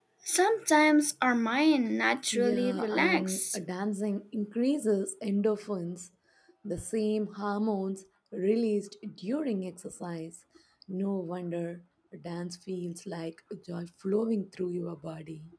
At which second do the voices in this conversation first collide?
2.3 s

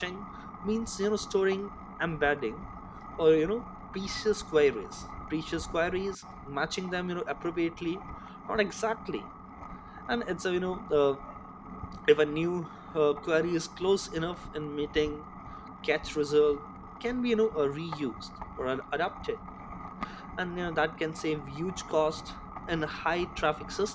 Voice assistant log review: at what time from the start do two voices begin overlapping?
none

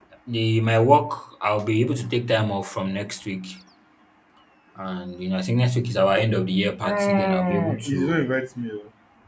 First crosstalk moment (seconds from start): 6.8 s

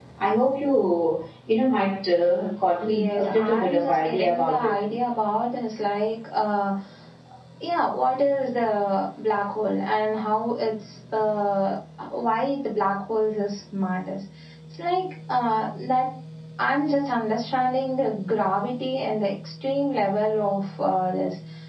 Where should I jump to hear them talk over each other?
2.9 s

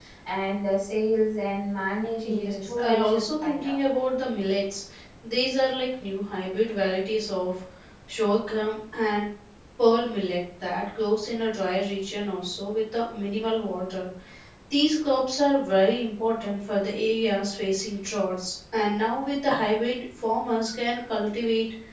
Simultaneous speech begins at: 2.2 s

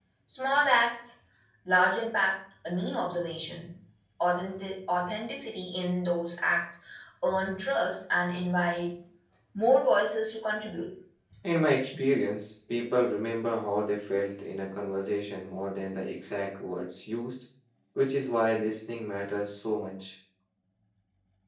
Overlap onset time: none

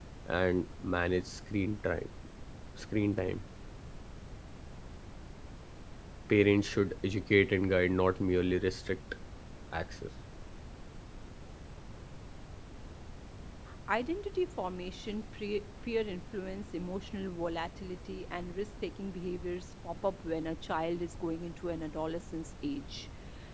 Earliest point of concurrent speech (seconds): none

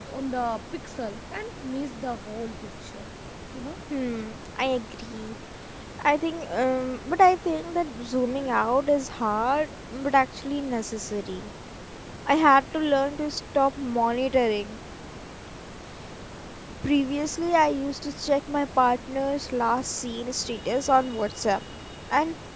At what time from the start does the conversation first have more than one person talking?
none

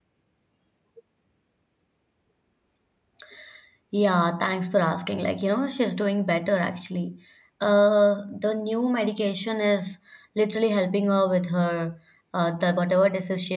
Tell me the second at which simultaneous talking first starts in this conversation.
none

